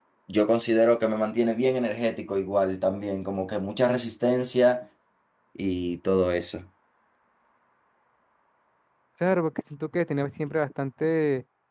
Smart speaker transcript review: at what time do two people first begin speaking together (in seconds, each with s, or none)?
none